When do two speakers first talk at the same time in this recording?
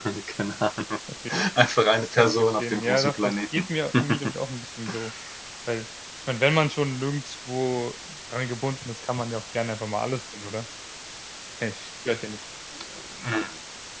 2.0 s

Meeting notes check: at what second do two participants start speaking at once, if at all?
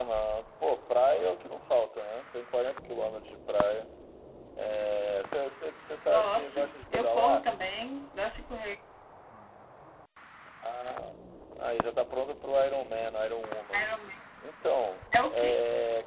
6.2 s

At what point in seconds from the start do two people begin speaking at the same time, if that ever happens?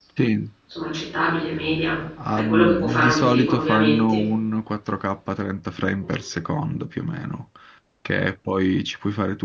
2.4 s

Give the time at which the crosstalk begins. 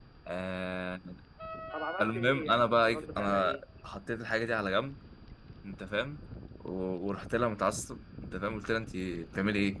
2.0 s

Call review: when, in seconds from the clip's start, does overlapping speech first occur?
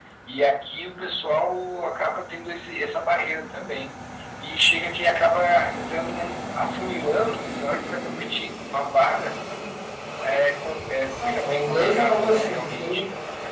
11.2 s

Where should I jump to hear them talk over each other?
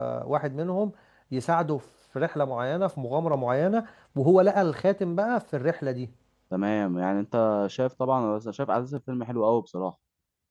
none

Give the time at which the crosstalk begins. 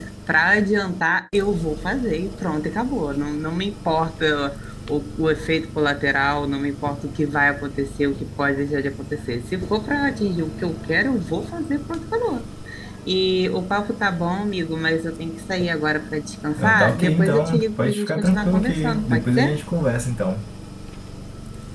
16.6 s

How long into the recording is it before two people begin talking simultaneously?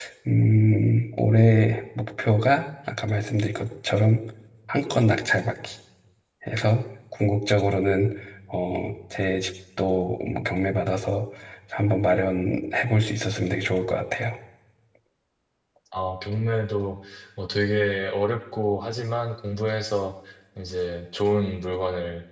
none

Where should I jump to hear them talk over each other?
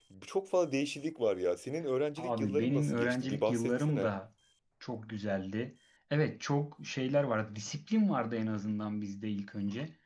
2.2 s

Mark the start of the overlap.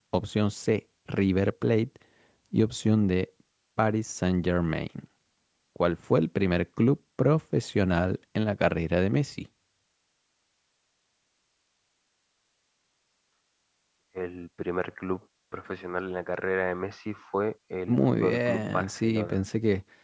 17.9 s

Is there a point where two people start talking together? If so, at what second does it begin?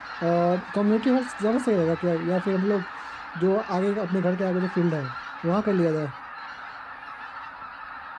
none

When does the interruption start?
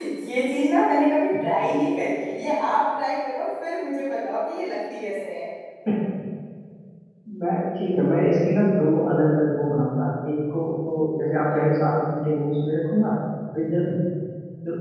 none

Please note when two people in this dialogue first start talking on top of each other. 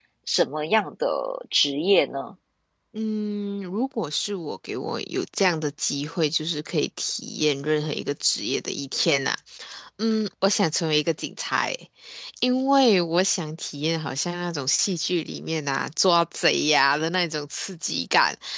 none

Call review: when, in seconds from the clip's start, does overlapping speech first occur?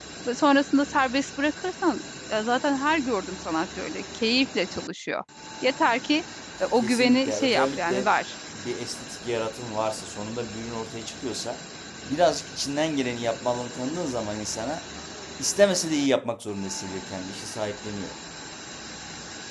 6.8 s

